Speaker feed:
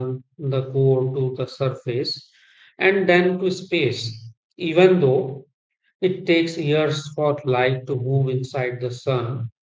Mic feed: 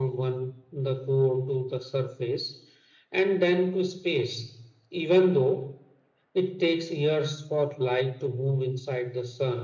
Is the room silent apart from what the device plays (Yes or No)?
Yes